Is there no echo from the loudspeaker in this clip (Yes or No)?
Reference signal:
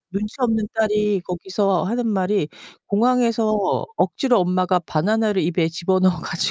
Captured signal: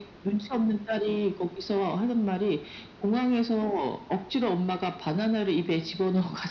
No